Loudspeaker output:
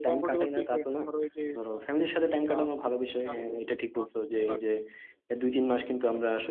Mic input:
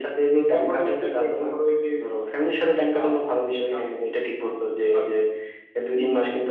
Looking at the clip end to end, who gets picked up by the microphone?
echo only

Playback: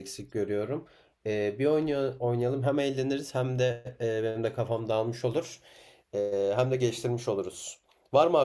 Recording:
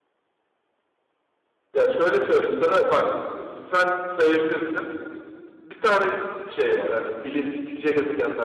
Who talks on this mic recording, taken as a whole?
user only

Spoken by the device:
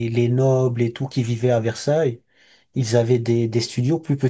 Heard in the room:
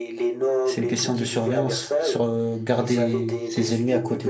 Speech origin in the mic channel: both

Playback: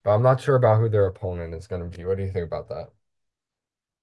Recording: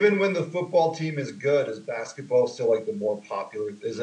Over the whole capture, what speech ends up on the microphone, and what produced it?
user only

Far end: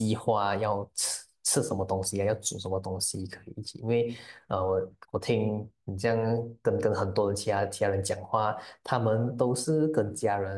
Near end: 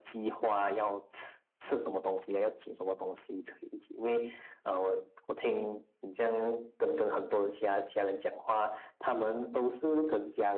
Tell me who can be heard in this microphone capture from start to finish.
echo only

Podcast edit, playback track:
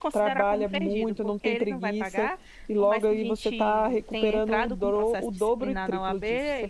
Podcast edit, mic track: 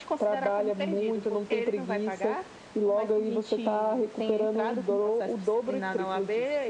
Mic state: echo only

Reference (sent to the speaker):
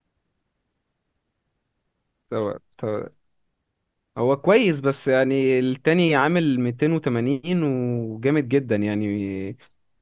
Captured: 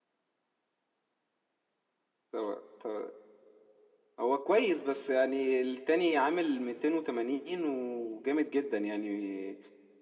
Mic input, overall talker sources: echo only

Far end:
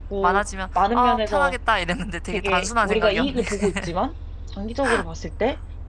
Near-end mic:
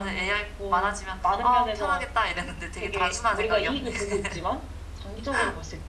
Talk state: echo only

